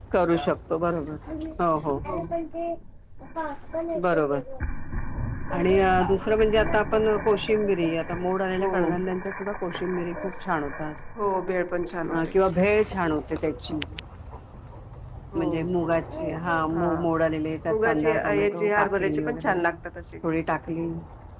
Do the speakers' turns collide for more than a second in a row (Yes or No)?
Yes